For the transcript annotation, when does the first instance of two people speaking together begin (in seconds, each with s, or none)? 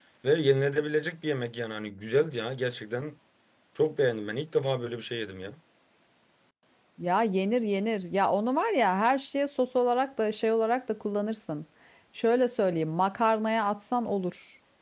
none